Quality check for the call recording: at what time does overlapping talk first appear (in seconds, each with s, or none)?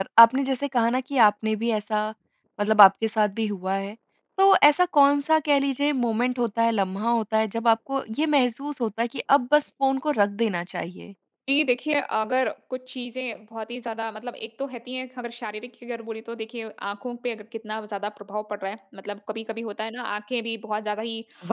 none